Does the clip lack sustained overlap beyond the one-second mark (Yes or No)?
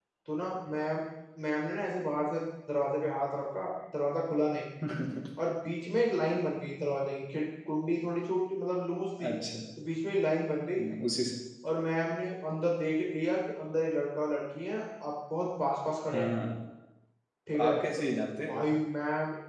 Yes